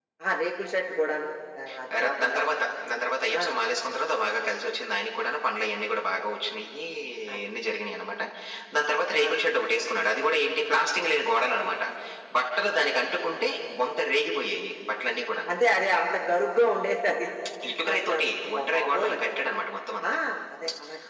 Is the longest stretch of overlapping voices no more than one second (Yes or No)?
No